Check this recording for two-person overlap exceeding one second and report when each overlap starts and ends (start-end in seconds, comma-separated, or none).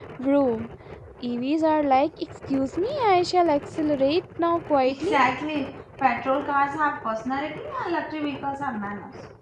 none